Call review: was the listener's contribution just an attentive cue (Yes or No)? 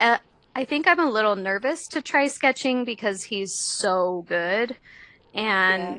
Yes